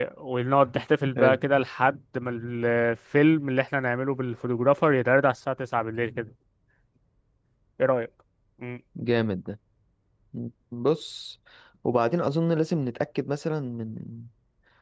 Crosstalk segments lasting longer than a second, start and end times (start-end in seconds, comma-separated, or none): none